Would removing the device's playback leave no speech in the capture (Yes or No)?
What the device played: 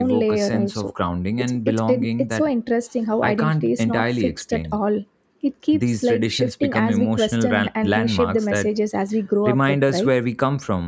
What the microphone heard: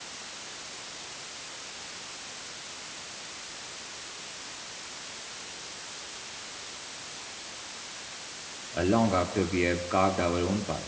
No